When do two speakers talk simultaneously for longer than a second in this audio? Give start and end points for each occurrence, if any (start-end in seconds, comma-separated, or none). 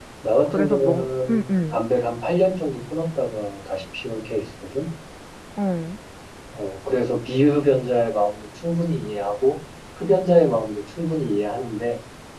0.5-1.8